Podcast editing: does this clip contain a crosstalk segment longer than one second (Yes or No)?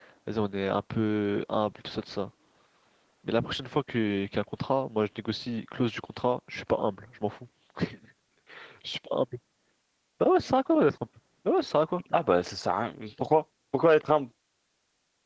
No